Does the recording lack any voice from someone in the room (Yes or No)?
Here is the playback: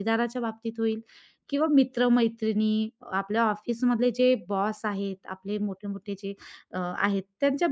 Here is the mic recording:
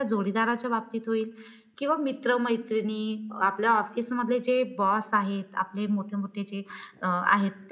Yes